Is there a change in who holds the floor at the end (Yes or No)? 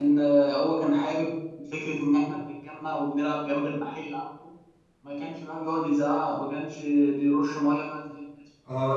Yes